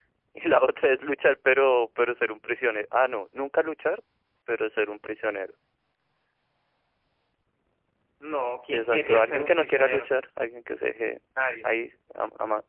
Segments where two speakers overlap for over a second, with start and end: 8.7-10.1

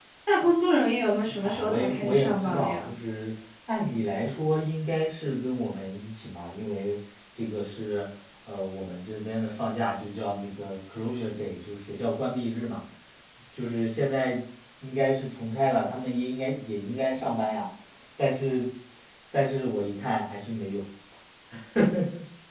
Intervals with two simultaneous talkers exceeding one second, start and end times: 1.4-2.9

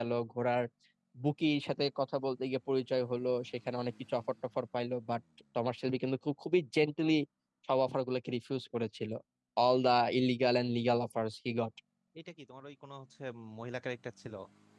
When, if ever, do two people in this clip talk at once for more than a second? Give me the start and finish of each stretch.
none

